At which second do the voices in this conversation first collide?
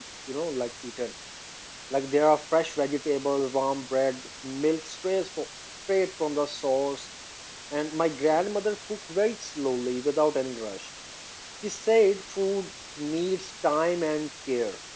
none

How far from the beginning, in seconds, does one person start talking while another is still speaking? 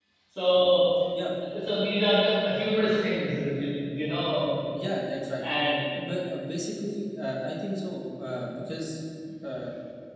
none

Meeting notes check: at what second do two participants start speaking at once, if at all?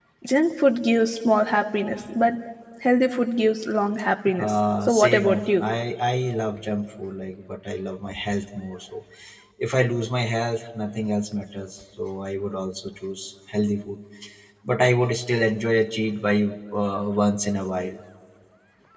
4.4 s

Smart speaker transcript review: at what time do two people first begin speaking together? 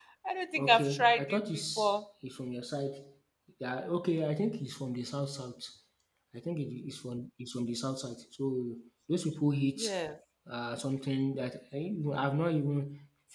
0.6 s

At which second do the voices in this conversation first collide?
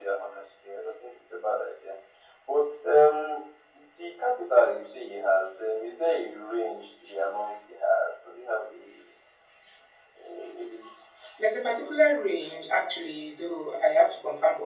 none

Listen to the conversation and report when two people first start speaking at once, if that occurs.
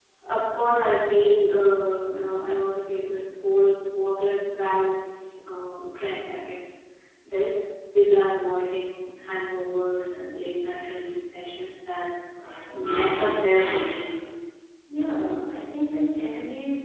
none

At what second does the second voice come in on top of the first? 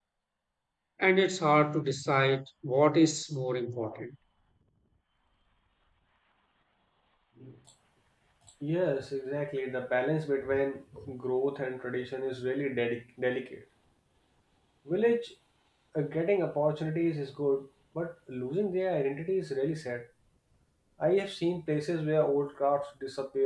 none

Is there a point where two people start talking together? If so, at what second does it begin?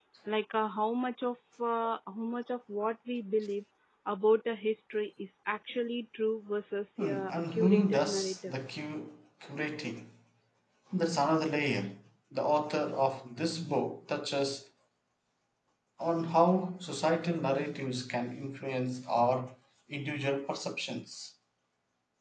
7.0 s

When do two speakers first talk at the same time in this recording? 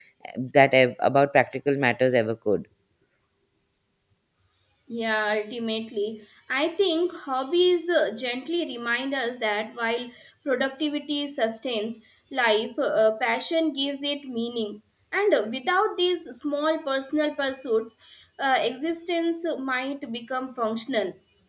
none

